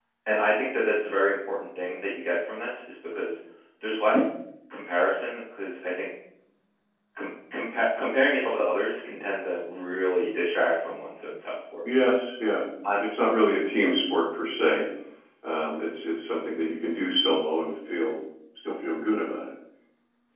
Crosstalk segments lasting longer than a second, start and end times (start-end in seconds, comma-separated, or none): none